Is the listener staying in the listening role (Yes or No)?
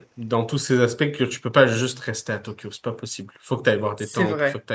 Yes